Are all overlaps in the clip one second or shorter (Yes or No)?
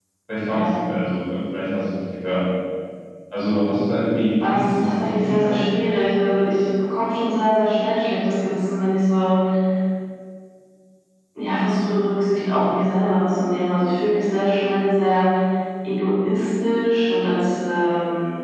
No